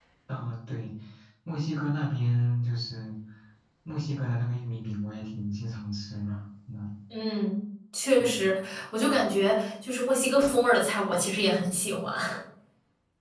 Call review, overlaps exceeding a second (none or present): none